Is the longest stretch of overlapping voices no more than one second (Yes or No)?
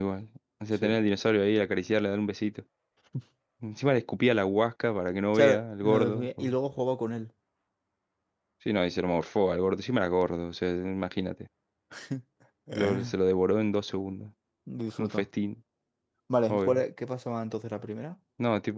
No